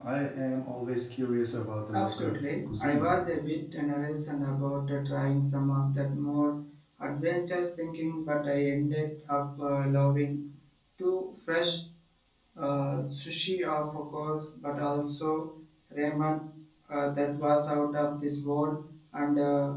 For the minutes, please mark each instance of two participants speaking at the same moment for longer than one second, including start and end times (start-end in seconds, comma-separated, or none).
1.9-3.4